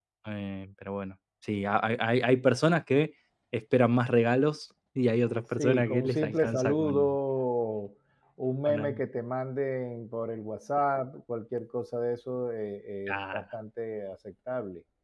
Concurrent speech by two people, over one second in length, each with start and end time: 5.6-7.2

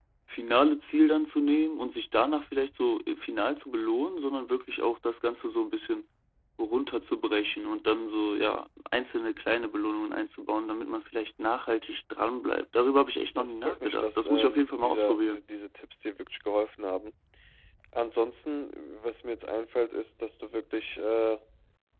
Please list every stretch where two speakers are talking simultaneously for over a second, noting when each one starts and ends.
13.4-15.4

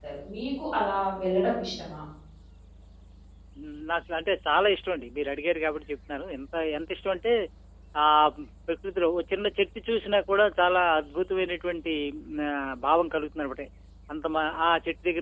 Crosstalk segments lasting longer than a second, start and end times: none

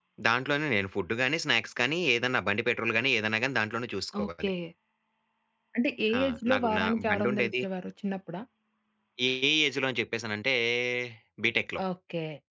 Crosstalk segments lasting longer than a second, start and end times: 6.2-7.5

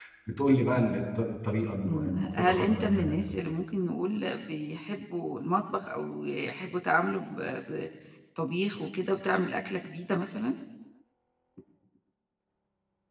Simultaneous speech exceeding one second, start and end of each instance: 1.9-3.6

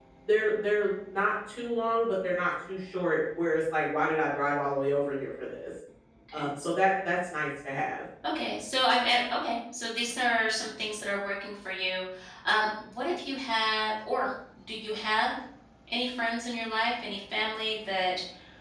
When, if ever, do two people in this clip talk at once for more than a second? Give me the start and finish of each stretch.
none

